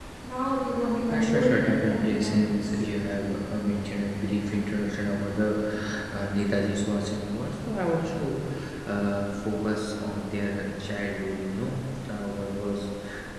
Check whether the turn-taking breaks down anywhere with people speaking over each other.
Yes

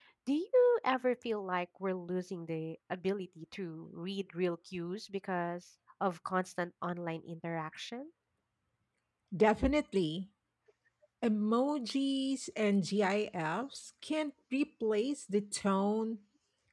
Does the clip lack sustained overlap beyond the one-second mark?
Yes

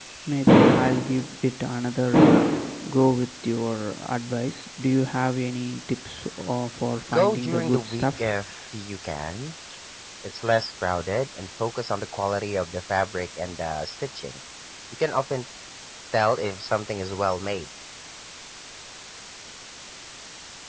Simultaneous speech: Yes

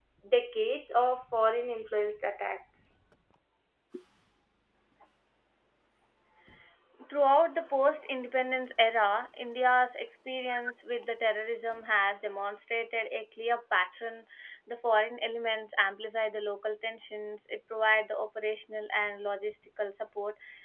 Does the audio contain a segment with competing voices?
No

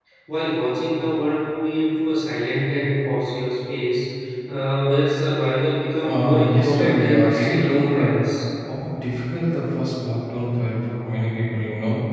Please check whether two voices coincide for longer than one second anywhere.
Yes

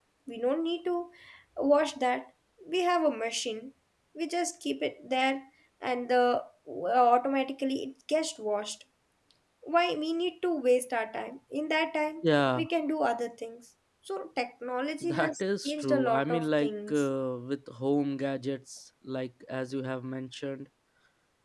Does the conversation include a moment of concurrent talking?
Yes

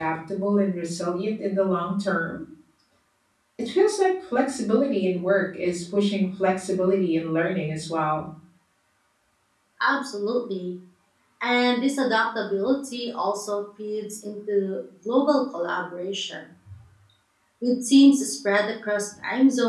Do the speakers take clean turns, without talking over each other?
Yes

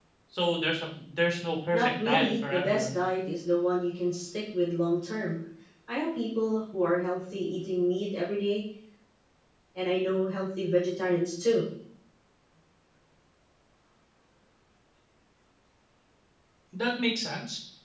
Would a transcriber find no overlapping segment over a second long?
No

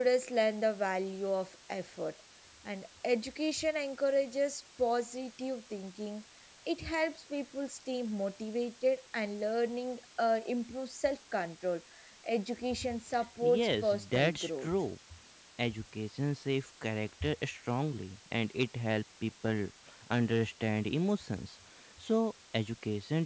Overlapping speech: Yes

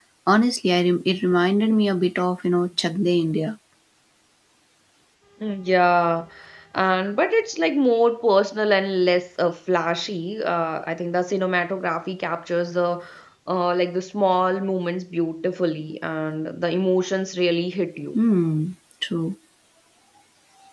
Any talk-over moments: No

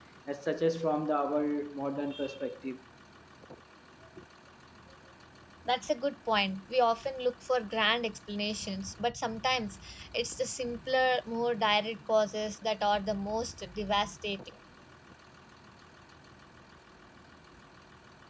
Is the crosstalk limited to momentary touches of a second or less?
Yes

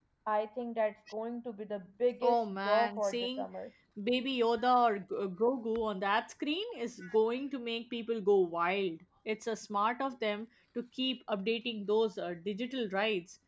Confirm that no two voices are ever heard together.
No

